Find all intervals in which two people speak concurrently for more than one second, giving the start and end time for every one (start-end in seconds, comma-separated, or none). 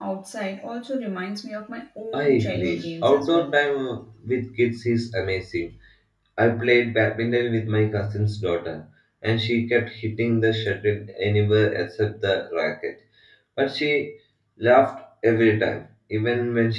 2.1-3.5